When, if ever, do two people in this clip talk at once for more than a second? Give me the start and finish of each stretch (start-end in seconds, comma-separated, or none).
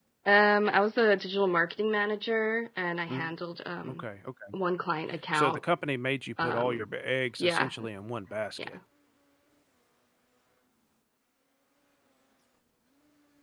none